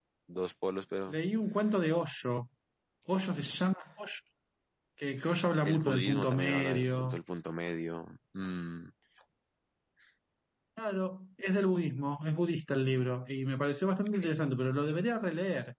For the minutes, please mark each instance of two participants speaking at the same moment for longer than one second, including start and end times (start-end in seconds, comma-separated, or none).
5.6-7.2